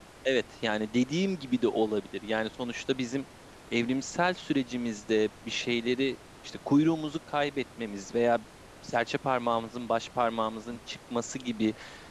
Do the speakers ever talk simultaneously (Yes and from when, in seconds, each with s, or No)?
No